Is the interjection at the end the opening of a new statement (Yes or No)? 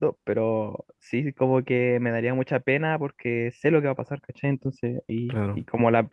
No